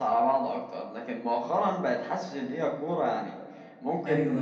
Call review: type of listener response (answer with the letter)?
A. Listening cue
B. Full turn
A